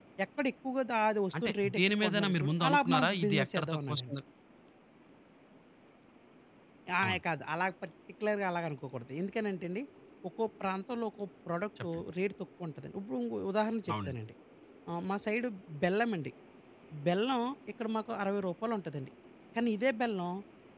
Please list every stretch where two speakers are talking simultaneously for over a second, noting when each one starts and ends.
1.4-4.2

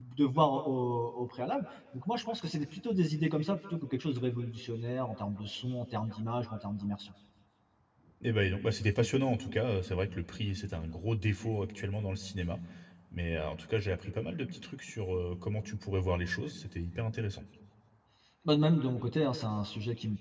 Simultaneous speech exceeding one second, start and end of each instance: none

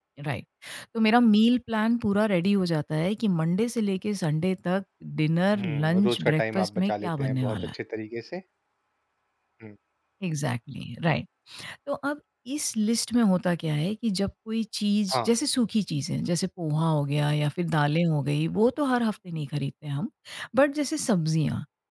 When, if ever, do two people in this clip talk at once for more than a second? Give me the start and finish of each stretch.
5.6-7.7

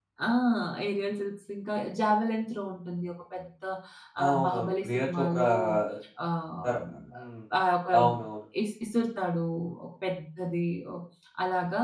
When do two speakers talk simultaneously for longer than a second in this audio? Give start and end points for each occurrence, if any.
4.2-5.5

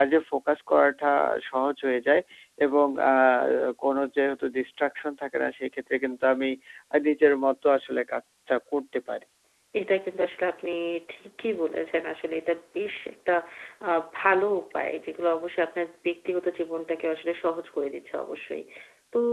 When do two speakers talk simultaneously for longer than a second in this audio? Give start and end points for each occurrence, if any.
none

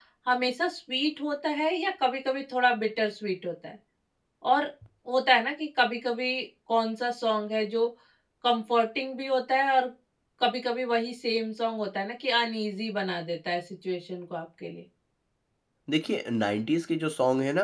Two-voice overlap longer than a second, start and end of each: none

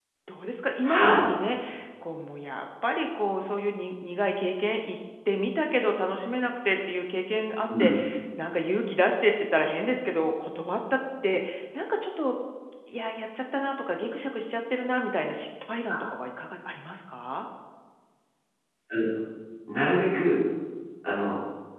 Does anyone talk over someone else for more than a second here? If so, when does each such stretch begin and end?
none

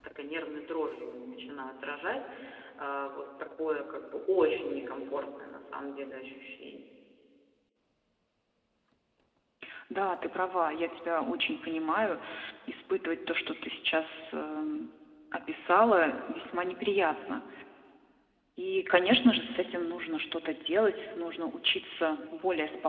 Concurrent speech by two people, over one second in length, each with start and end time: none

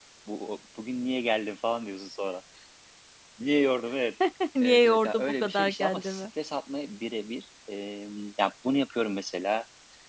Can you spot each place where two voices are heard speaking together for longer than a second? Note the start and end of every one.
4.6-6.2

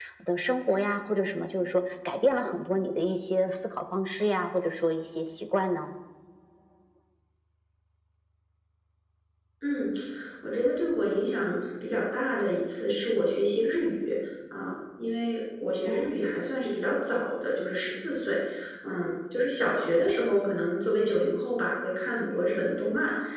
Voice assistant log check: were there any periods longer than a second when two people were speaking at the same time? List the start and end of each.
none

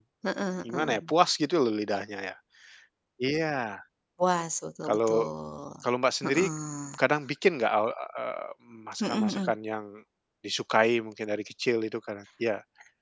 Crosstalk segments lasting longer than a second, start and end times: none

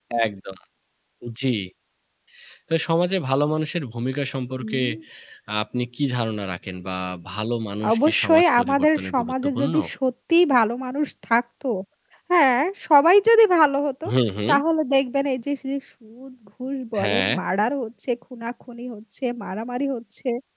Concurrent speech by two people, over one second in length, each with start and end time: 7.9-9.7

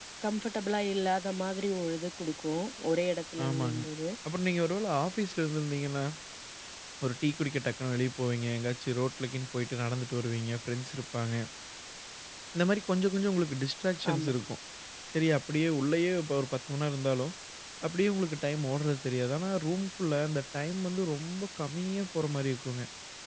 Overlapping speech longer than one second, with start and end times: none

